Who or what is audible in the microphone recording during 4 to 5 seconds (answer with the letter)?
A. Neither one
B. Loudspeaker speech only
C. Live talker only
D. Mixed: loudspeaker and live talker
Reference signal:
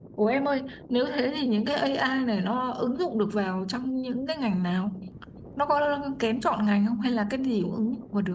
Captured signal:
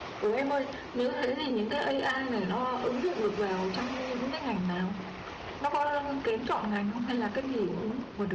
B